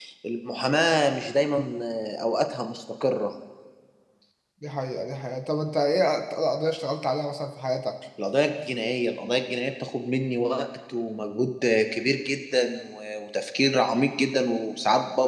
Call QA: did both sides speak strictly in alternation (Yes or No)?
Yes